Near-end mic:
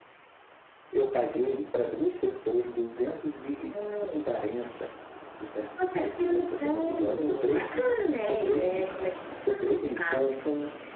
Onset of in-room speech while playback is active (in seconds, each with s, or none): none